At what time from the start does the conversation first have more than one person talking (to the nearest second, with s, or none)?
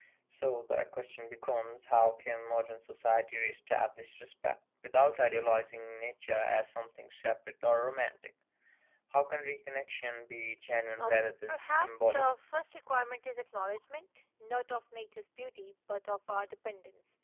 11 s